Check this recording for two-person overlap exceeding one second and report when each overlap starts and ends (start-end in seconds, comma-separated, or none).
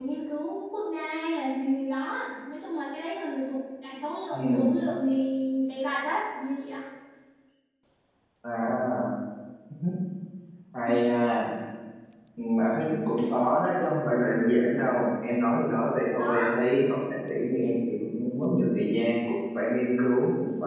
none